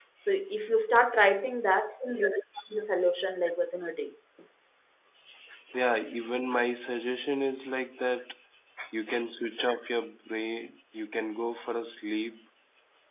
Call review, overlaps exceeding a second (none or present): none